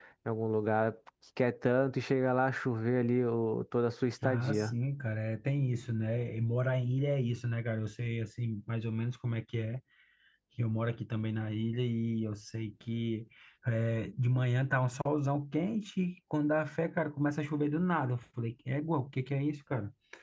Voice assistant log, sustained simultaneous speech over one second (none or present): none